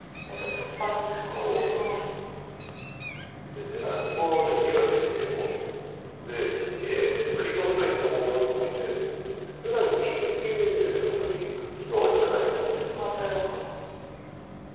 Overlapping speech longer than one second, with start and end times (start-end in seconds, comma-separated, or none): none